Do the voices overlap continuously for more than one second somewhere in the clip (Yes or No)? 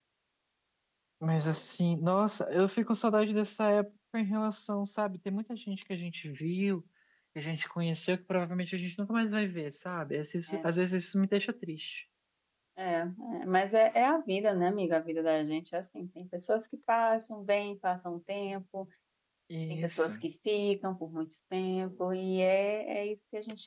No